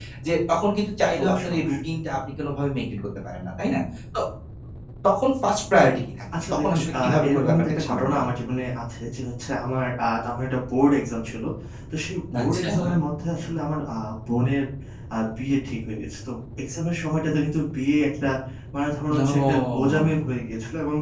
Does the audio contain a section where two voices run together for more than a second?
Yes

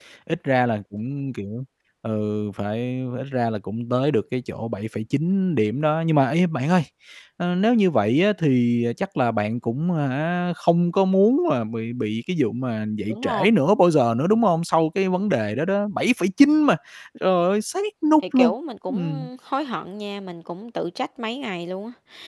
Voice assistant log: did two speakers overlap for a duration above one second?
No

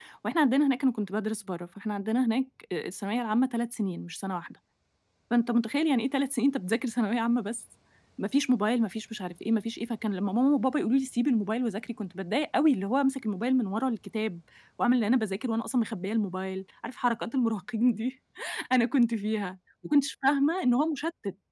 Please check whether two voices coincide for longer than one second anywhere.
No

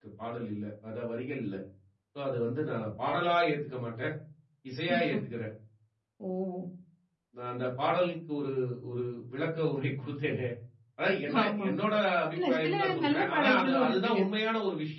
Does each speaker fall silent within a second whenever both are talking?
No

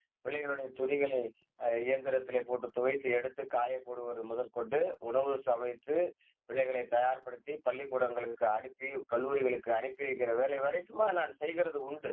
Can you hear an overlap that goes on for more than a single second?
No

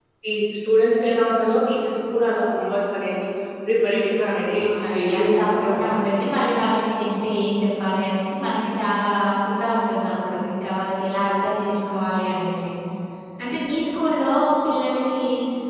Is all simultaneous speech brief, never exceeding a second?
No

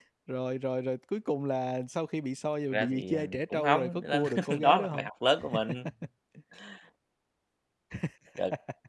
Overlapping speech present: Yes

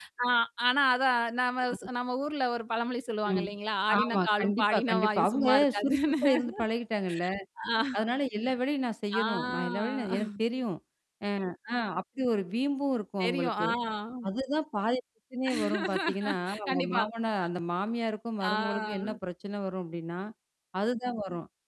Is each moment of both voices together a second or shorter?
No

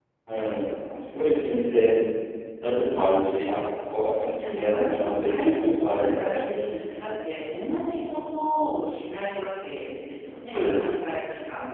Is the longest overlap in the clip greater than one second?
Yes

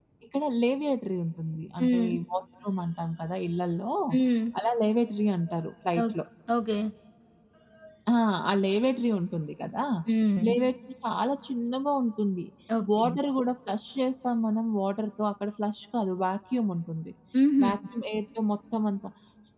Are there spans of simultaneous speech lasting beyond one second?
No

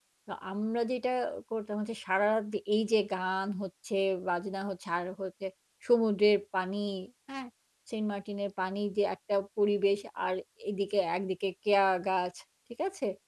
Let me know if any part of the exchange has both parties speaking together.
No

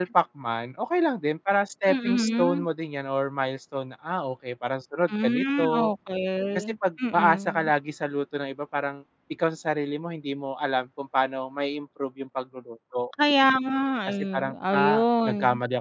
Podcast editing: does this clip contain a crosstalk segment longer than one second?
Yes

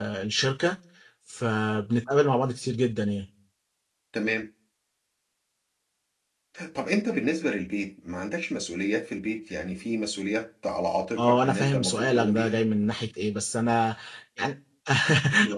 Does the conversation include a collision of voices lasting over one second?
Yes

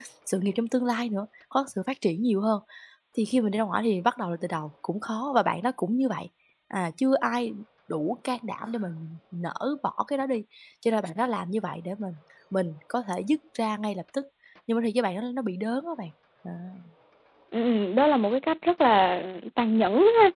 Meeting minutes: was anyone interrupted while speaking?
No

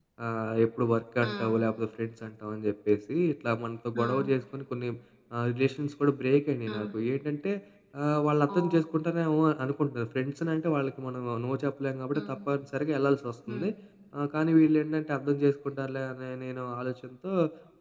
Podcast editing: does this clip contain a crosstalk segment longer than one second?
No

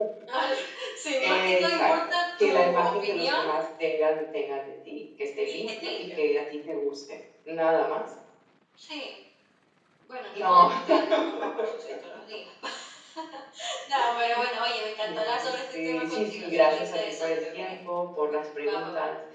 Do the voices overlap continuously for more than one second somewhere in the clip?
Yes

